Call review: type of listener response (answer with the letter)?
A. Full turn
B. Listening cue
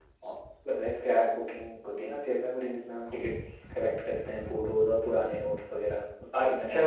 A